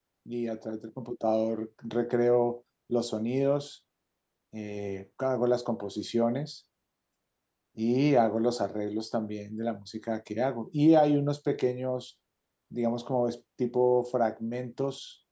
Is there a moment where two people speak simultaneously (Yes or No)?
No